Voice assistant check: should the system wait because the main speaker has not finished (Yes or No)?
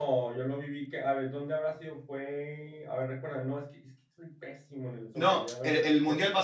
No